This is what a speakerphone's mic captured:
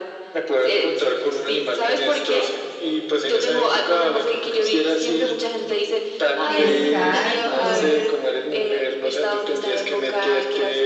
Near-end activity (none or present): present